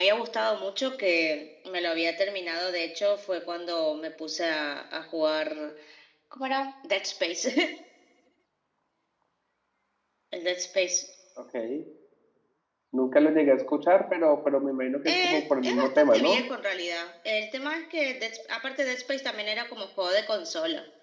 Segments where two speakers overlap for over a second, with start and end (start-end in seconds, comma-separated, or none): 15.1-16.4